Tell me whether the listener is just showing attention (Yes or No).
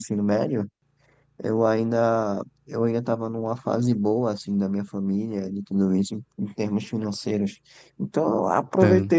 Yes